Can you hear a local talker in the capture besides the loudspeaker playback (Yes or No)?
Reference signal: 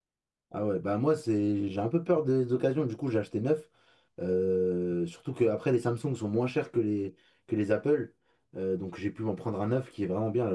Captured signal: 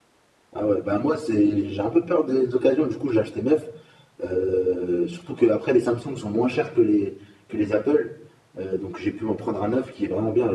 No